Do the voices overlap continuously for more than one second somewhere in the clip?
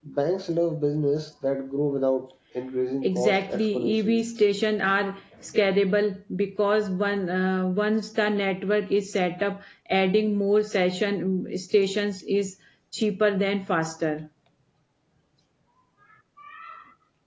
Yes, from 3.0 s

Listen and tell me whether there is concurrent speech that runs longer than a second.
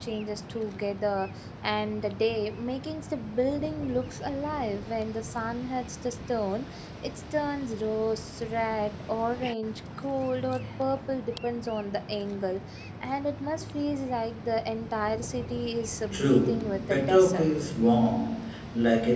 Yes, from 16.1 s

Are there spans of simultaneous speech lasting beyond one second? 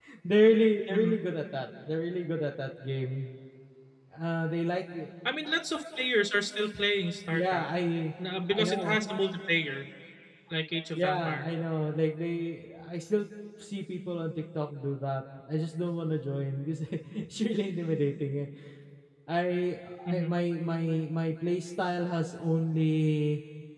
No

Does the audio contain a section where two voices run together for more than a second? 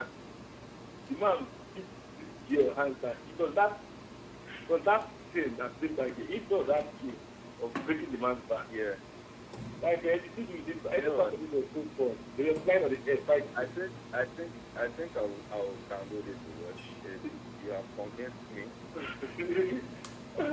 No

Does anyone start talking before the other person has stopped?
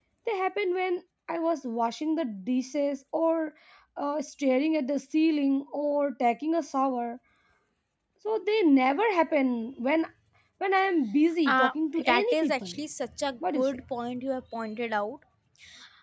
Yes, from 11.5 s

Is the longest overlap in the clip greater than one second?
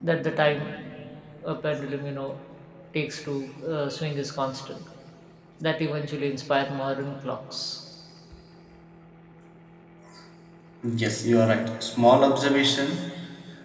No

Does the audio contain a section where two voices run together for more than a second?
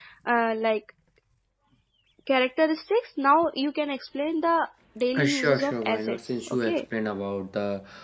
Yes, from 5.1 s

